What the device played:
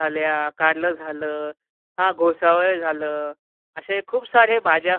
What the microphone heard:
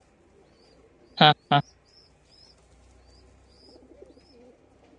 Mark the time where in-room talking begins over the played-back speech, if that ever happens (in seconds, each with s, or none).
1.2 s